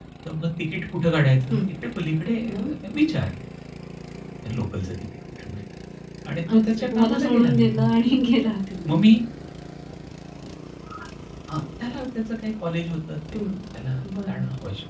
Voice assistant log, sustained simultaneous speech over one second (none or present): present